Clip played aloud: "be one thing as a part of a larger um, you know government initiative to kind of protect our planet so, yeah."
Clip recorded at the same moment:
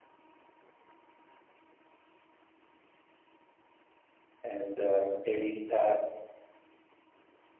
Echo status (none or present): none